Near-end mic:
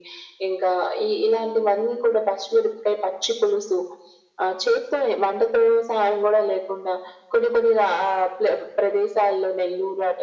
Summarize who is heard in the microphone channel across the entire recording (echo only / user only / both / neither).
echo only